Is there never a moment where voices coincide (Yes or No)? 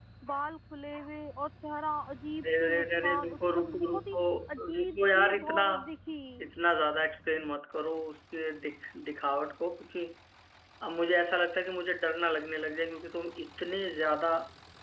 No